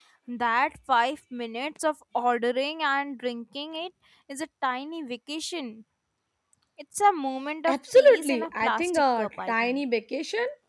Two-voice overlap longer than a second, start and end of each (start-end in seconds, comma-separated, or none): 7.7-9.8